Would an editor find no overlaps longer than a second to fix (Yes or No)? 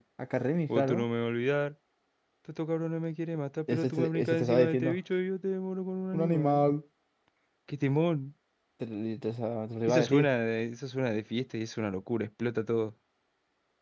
No